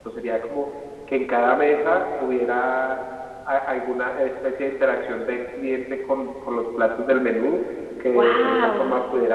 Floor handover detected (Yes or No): No